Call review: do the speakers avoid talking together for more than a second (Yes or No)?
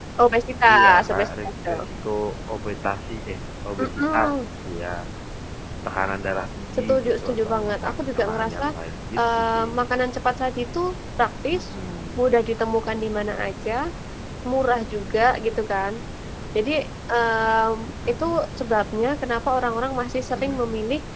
No